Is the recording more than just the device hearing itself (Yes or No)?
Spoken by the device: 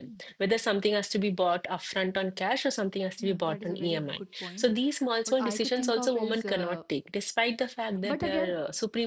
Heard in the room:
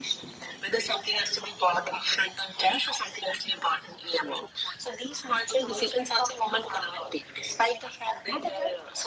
No